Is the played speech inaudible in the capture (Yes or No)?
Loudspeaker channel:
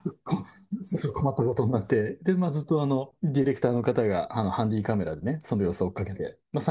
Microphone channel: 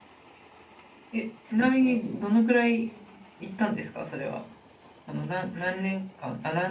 Yes